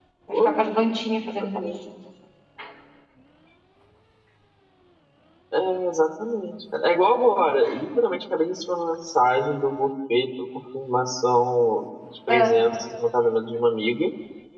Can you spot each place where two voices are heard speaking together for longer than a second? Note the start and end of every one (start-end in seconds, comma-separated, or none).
none